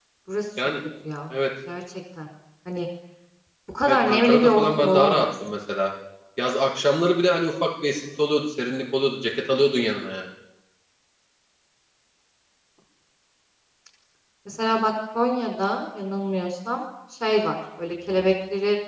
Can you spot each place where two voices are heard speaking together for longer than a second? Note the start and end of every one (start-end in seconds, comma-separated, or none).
3.9-5.3